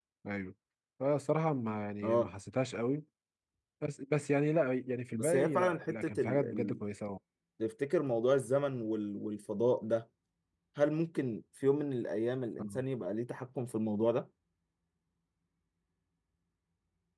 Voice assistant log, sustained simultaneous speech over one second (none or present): present